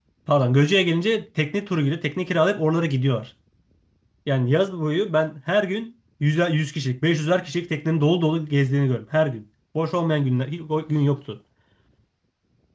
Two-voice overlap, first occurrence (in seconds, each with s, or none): none